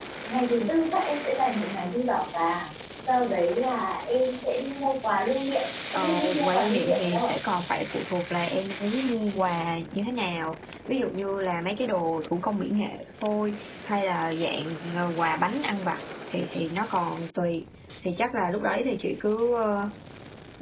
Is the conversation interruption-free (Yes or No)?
No